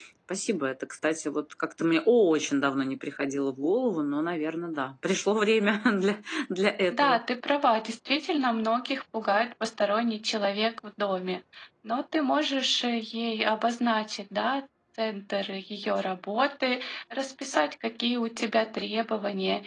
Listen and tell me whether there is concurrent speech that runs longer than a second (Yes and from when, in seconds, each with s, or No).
No